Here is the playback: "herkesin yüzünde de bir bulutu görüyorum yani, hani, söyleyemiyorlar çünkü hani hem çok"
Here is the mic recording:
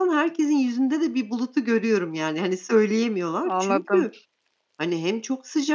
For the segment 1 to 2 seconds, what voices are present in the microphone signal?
echo only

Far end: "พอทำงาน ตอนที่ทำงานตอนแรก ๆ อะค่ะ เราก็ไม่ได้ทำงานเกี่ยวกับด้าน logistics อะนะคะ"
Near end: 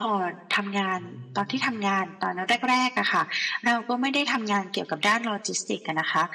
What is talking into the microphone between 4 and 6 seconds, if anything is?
echo only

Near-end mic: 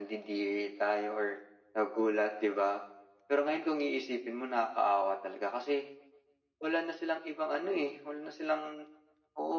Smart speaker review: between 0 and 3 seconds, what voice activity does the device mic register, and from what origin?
echo only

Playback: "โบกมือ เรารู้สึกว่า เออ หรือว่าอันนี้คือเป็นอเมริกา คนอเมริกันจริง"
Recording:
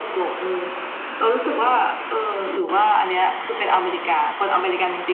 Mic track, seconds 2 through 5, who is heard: echo only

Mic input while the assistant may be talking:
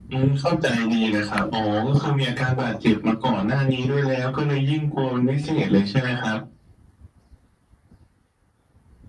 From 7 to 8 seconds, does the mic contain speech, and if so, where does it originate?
neither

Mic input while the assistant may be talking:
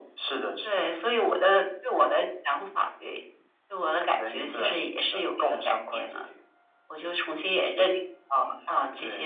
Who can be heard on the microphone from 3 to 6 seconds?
echo only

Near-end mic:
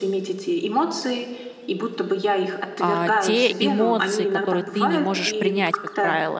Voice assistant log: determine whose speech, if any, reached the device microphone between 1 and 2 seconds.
echo only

